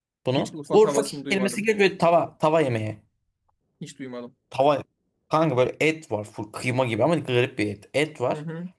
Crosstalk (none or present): present